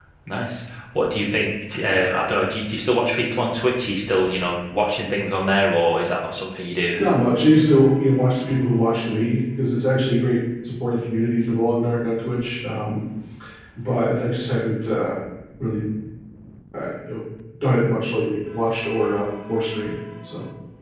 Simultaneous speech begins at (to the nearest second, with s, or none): none